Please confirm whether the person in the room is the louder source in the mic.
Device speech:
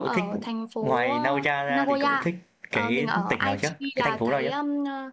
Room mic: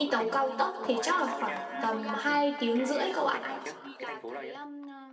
Yes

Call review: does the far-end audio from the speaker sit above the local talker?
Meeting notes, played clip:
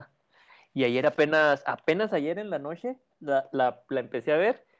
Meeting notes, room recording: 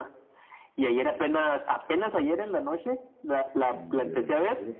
Yes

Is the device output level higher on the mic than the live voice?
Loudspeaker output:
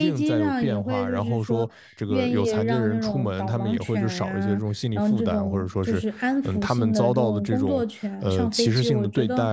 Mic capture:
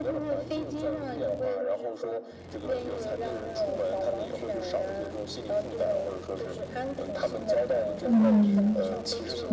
No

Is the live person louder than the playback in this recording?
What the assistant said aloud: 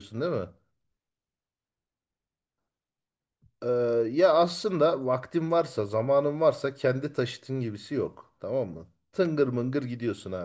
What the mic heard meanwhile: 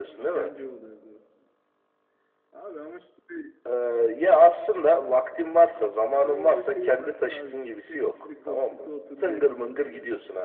No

